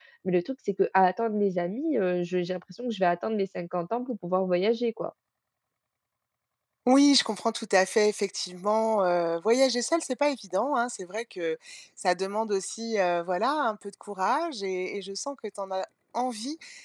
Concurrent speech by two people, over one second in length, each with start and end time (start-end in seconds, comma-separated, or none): none